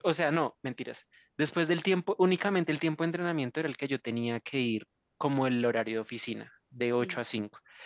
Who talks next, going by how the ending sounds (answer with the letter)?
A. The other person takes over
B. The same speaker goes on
B